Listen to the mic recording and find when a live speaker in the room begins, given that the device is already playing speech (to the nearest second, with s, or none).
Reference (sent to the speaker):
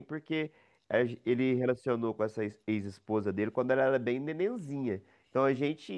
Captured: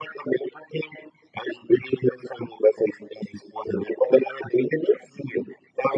none